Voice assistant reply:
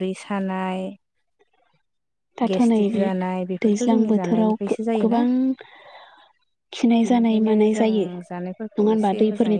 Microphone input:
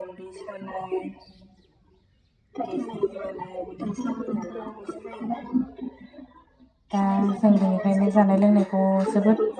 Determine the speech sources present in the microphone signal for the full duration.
both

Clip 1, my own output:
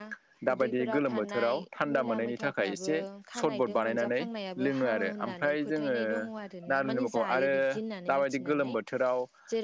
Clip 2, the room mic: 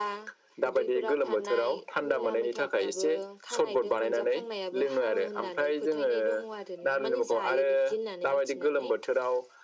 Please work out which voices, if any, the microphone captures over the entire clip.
echo only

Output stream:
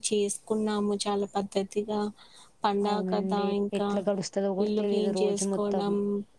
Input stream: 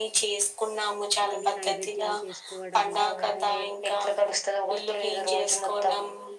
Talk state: both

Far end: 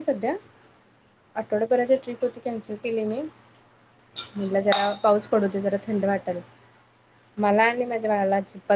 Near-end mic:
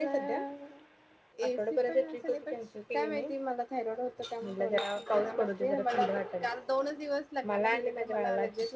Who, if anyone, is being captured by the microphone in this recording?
both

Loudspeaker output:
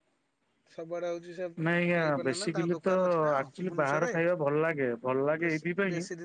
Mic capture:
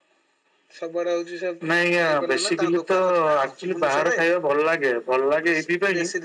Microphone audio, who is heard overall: echo only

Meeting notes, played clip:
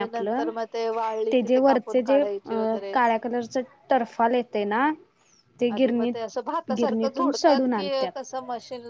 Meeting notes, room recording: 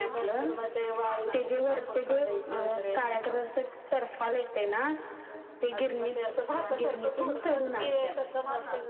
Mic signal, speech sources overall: both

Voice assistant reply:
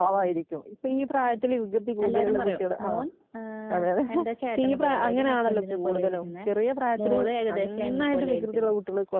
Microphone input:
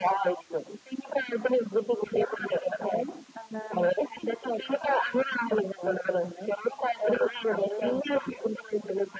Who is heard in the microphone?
echo only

